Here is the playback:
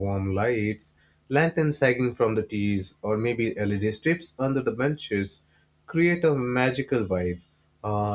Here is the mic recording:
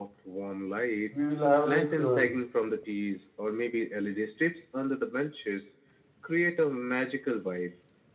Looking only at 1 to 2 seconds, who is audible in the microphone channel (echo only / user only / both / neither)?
both